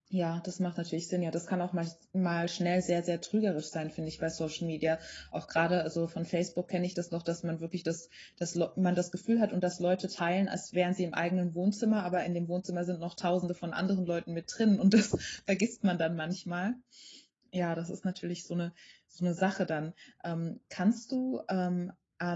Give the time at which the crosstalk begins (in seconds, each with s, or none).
none